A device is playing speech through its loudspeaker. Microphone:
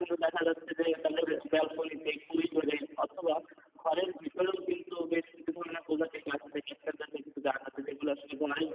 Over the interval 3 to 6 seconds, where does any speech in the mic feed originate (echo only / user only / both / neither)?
echo only